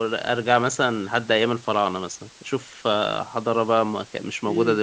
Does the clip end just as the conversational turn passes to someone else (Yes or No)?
Yes